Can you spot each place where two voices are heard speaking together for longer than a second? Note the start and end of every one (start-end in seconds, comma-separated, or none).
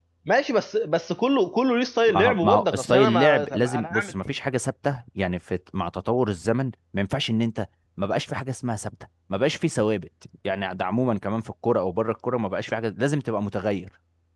2.0-4.1